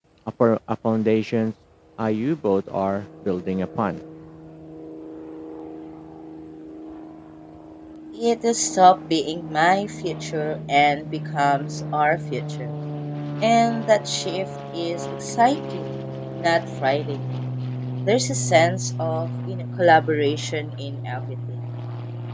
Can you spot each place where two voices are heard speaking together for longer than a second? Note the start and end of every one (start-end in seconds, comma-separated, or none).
none